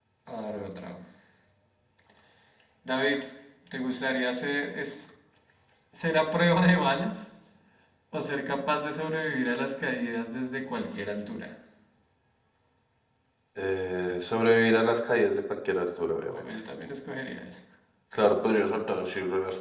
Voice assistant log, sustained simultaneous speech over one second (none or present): none